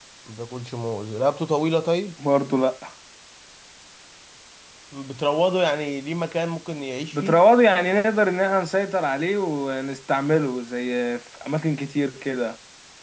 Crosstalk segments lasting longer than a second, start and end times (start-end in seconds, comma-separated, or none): none